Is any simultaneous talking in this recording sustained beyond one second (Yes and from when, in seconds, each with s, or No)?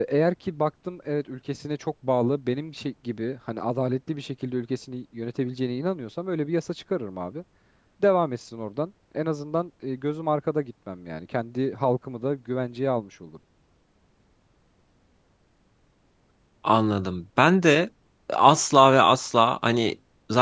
No